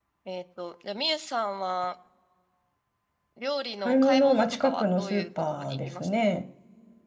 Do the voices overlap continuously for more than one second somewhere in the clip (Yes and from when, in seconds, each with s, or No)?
Yes, from 3.8 s